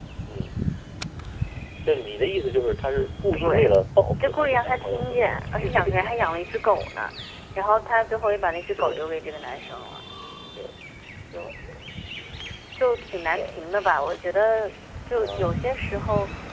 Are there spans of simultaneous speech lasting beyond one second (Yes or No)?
Yes